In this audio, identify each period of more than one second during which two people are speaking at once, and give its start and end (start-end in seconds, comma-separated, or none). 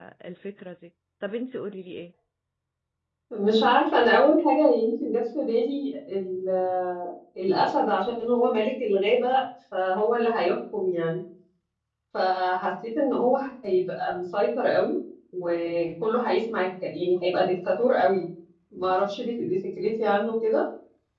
none